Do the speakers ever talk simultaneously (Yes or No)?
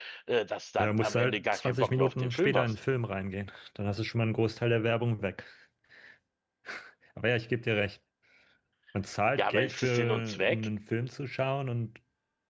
Yes